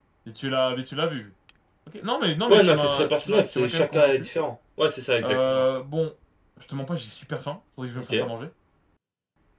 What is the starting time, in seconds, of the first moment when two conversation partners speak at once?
2.5 s

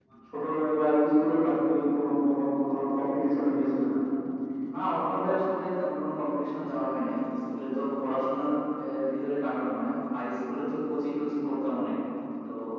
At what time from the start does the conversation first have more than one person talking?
none

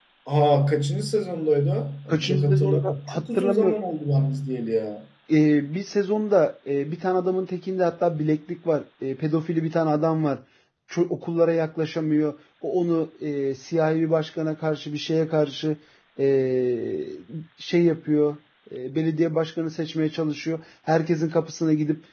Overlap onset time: 2.1 s

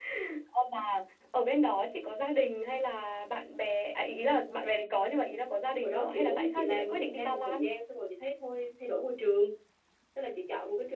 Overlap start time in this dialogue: 5.8 s

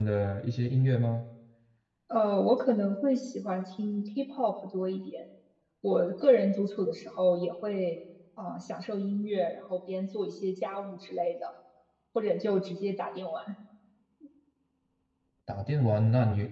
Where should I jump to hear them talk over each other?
none

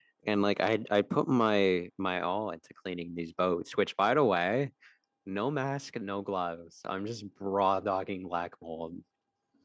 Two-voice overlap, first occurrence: none

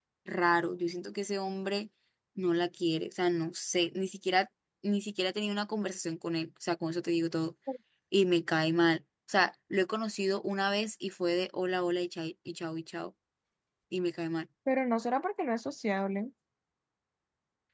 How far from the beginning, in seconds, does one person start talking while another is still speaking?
none

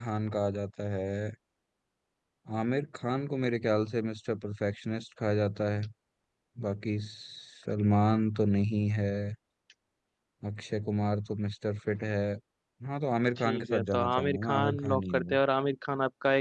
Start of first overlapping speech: 13.4 s

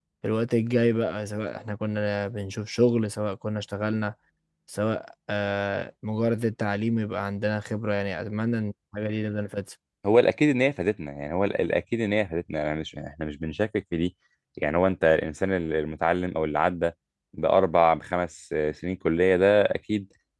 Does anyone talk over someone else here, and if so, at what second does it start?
none

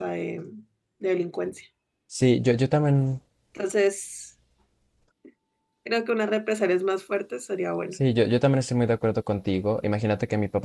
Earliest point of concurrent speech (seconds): none

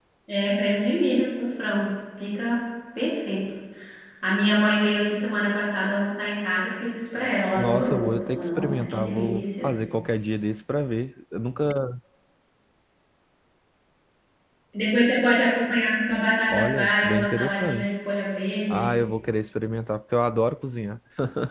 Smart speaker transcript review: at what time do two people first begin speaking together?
7.5 s

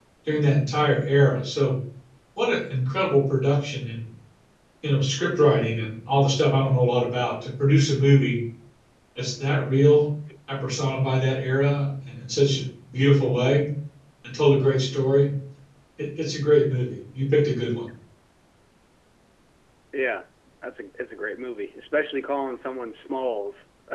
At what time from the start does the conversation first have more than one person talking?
none

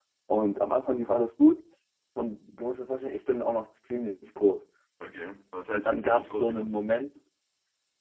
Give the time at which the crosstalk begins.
5.7 s

